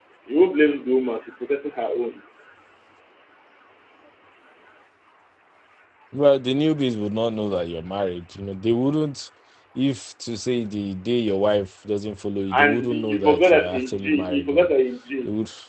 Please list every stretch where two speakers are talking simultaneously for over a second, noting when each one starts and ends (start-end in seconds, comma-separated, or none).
12.5-14.7